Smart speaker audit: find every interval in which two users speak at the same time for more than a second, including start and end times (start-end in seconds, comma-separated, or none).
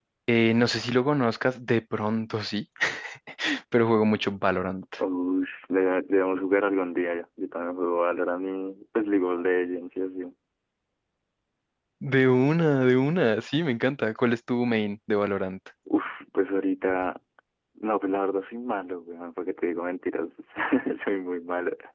none